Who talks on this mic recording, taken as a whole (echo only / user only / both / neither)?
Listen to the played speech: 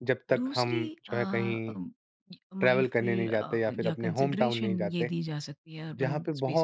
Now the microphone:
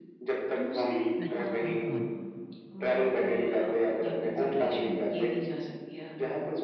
both